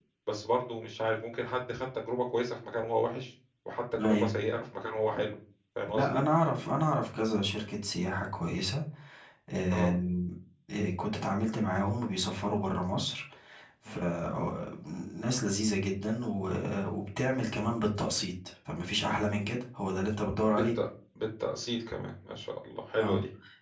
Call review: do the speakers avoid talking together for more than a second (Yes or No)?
Yes